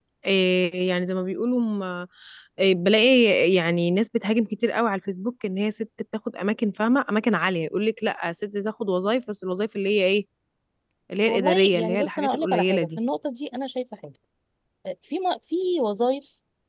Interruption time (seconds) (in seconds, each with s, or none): 11.3 s